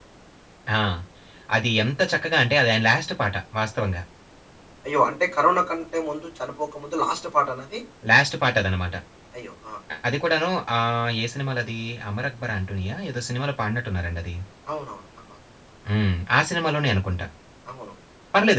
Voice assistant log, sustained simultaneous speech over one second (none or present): none